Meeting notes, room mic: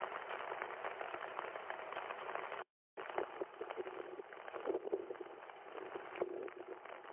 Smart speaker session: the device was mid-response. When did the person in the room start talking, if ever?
none

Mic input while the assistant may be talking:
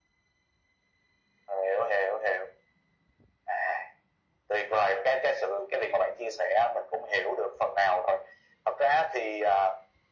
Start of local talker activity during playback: none

